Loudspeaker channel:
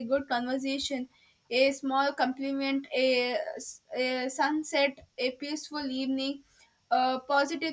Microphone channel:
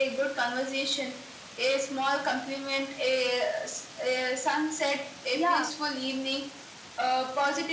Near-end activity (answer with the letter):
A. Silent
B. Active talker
B